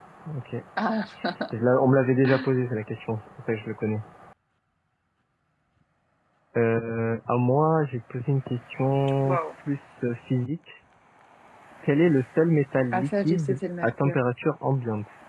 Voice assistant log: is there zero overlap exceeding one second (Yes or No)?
No